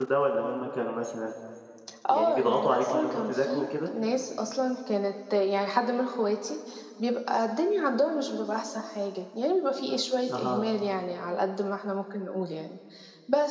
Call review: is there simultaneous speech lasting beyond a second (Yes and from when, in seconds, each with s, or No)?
Yes, from 2.1 s